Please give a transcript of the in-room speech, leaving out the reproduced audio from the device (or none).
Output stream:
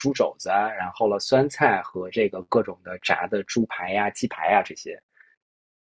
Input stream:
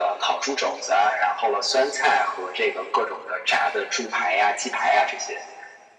none